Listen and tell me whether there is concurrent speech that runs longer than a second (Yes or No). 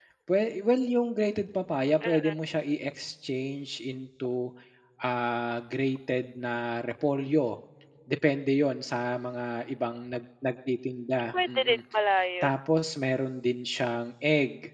No